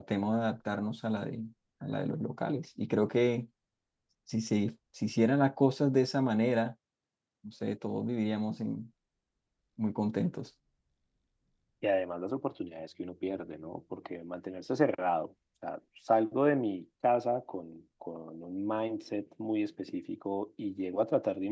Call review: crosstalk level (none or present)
none